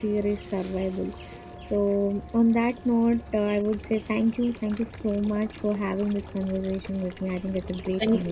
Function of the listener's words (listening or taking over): taking over